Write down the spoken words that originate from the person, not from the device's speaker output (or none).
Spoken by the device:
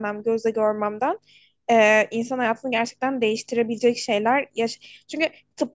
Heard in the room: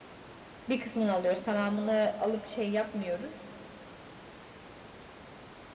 bir kısmını alıyoruz tamamını alıp şey yapmıyoruz.